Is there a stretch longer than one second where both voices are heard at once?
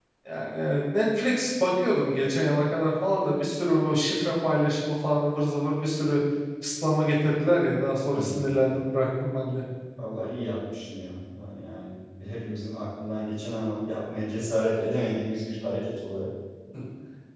No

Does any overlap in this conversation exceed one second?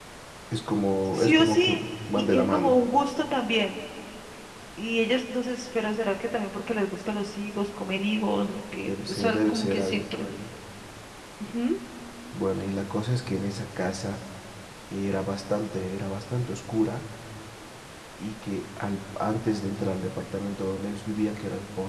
Yes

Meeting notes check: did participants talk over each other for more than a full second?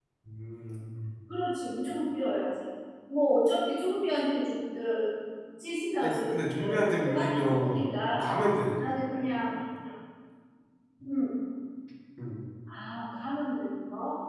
Yes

